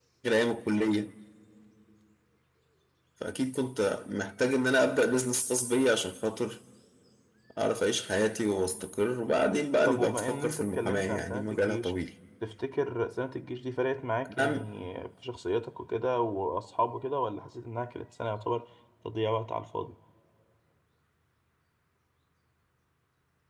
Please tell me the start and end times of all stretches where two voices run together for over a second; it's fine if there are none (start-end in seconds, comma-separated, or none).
9.9-11.9